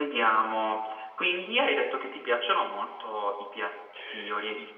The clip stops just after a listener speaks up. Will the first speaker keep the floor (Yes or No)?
No